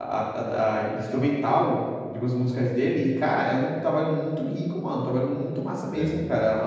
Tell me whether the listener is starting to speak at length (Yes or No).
No